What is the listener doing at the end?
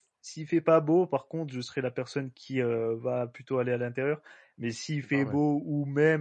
listening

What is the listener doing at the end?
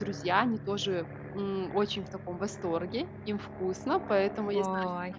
listening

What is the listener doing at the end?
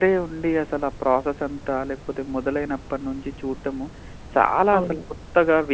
listening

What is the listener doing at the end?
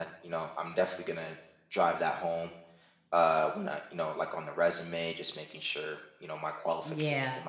taking over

